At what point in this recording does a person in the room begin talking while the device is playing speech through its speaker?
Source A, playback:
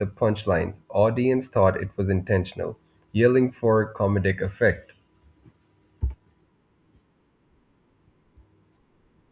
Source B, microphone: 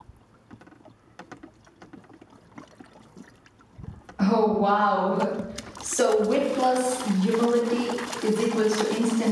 4.2 s

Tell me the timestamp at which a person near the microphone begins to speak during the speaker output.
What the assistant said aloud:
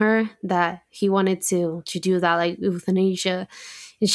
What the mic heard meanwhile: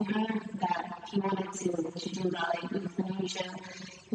none

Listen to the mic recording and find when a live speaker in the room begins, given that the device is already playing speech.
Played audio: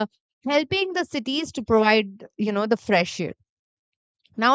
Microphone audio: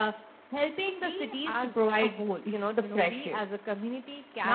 1.0 s

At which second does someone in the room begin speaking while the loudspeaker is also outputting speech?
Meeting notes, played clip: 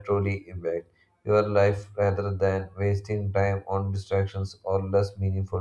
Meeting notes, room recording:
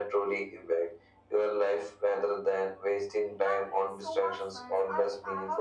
3.4 s

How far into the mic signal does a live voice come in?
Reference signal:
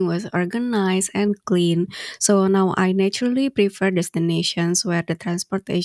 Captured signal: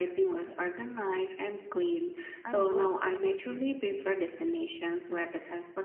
2.4 s

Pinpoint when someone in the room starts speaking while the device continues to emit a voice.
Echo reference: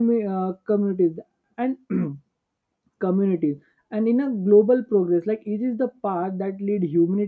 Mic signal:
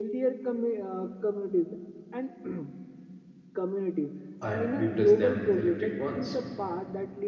4.4 s

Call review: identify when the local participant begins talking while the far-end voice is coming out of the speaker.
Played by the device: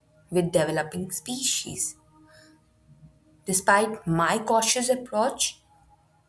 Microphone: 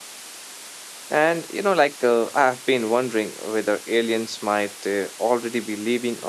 1.1 s

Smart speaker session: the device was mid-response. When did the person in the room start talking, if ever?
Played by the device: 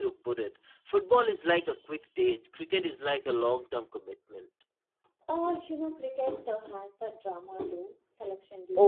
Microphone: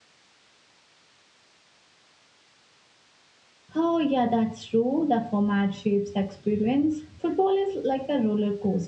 3.7 s

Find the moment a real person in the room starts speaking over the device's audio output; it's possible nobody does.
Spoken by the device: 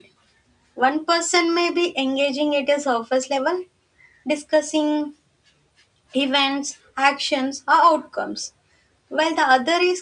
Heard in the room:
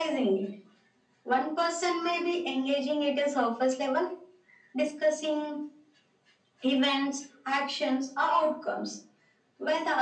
none

